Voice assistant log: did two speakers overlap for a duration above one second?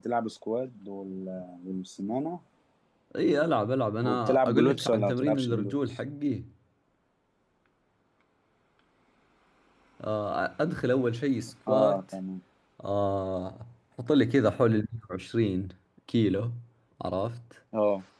Yes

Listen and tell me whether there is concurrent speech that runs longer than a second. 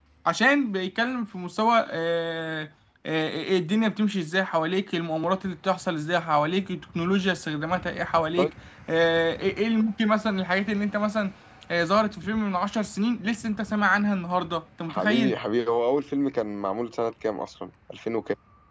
No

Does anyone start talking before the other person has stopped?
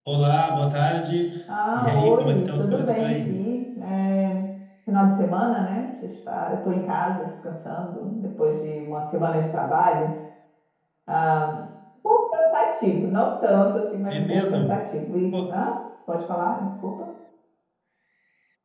Yes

